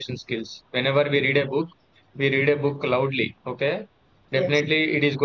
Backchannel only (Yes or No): Yes